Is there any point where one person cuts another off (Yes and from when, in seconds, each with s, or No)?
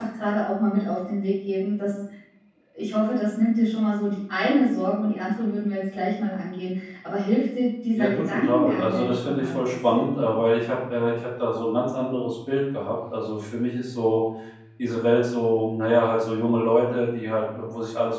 Yes, from 8.0 s